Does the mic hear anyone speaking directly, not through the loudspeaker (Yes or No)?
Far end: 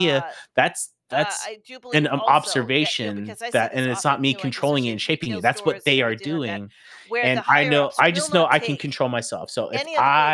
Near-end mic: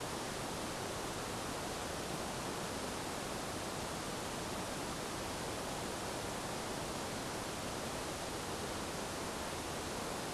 No